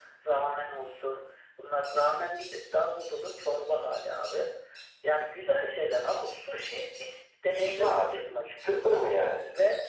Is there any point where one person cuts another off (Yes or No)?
Yes